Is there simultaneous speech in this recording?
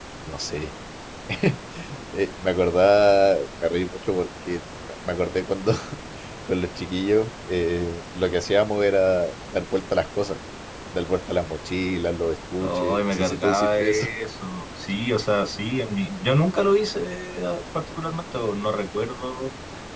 Yes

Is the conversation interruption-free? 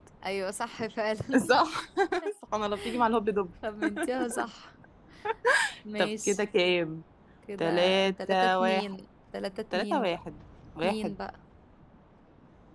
No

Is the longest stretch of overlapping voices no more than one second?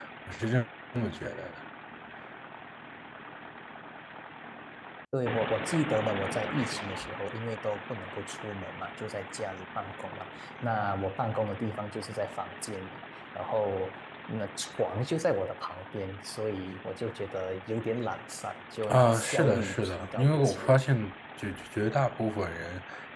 No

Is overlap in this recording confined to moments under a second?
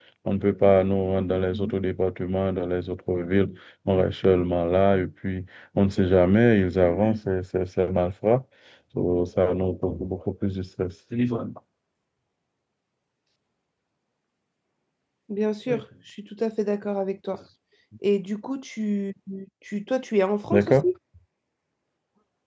Yes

